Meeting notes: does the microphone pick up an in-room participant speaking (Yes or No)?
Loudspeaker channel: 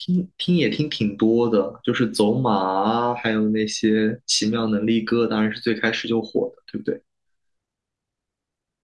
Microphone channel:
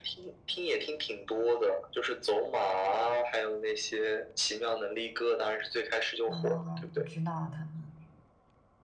Yes